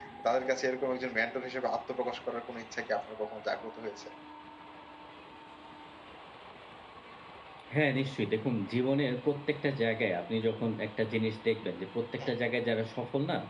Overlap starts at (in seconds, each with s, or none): none